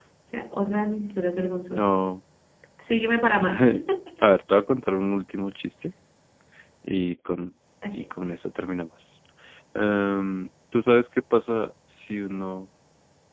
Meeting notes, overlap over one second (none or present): none